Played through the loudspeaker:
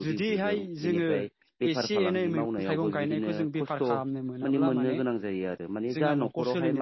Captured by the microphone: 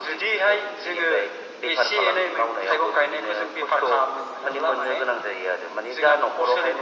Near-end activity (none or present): none